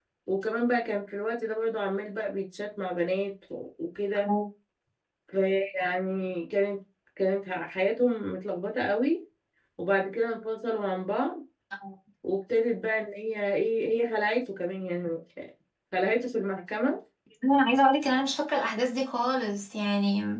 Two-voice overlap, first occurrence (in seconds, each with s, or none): none